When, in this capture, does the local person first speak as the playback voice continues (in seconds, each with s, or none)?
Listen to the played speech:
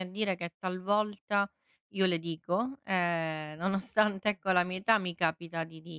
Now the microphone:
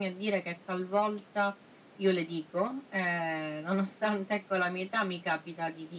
none